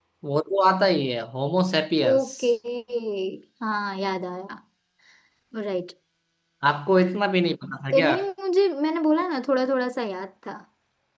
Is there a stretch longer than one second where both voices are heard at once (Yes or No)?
No